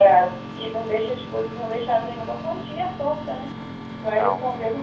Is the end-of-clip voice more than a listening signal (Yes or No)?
No